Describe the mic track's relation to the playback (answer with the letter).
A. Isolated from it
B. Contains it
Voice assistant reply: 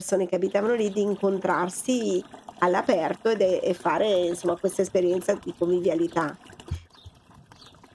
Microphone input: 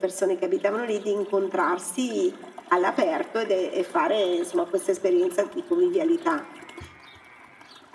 B